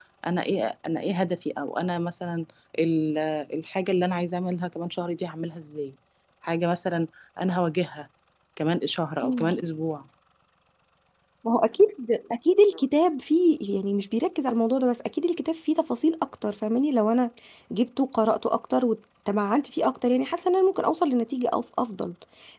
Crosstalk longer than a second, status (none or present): none